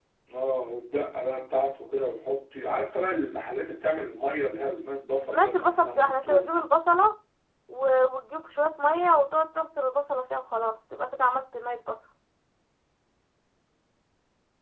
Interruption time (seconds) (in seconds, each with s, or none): 5.2 s